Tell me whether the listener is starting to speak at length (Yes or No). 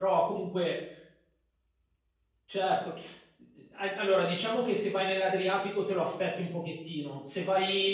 No